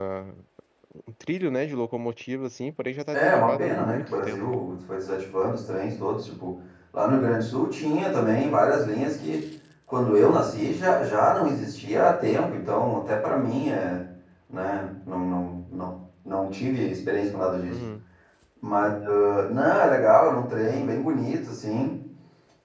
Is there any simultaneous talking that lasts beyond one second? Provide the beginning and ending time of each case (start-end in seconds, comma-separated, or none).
3.1-4.4